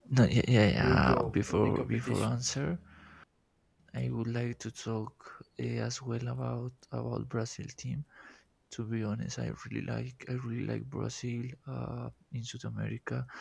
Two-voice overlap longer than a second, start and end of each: 0.8-2.4

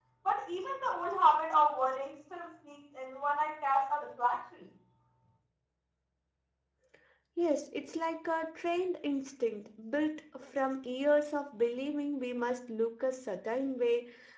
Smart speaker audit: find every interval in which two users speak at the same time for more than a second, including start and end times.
none

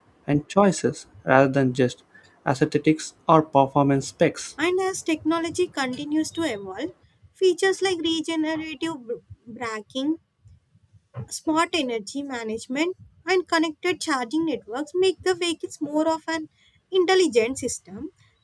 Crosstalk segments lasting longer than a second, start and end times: none

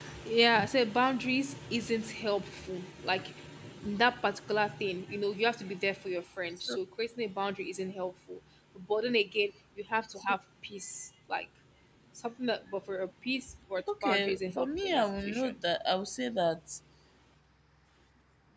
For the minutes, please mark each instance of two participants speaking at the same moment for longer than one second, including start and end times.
14.0-15.5

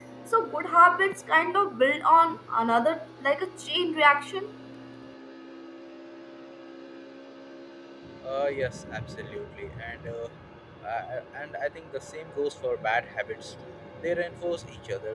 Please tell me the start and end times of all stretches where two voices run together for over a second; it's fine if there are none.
none

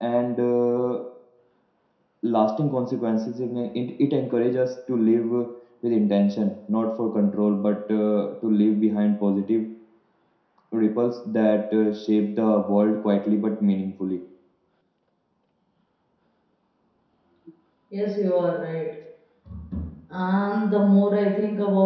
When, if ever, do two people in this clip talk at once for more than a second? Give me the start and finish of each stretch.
none

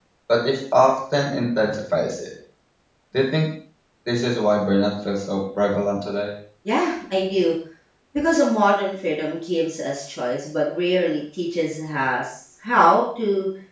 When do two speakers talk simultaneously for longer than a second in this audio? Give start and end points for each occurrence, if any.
none

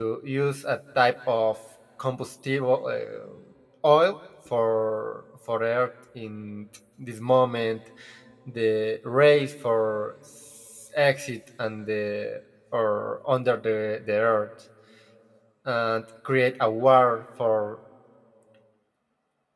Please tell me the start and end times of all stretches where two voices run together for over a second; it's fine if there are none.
none

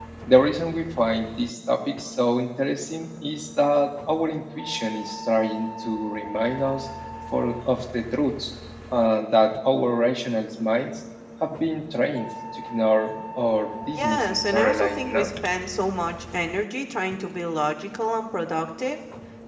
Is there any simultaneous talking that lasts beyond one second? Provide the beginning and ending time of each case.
14.0-15.3

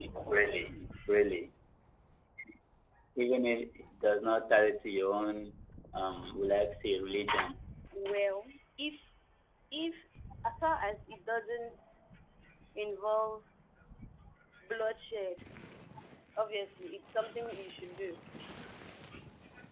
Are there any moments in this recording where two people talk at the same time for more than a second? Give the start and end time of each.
none

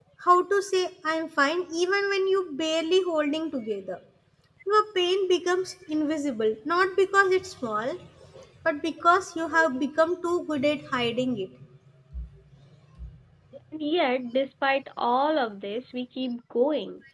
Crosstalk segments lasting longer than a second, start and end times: none

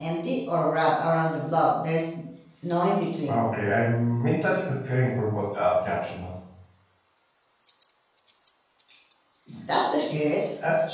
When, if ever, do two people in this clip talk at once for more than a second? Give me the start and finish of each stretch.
none

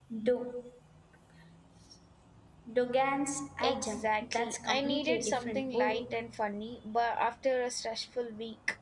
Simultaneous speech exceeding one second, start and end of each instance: 3.6-6.2

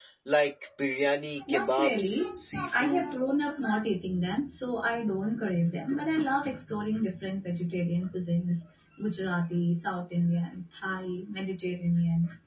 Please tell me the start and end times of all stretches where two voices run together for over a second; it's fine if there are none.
1.5-3.1

